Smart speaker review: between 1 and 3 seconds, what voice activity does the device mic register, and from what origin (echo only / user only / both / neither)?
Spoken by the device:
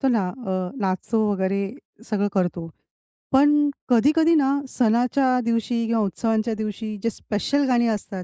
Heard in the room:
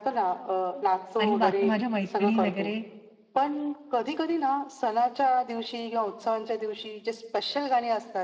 both